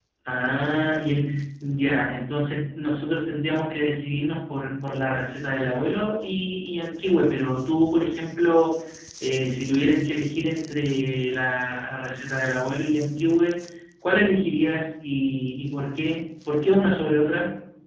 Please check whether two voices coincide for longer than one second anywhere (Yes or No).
No